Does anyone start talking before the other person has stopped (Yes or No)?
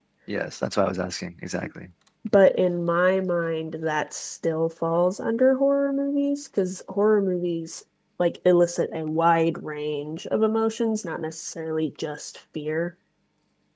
No